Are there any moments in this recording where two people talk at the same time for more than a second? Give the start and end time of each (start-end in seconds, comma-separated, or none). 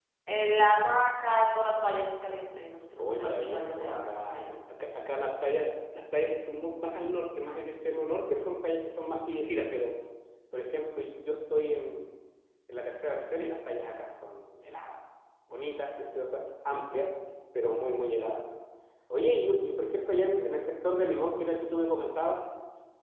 3.0-4.5